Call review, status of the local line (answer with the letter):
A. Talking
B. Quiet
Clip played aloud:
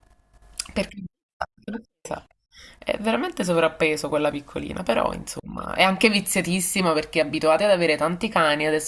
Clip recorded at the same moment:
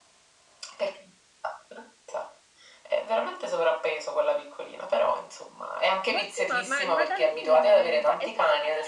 A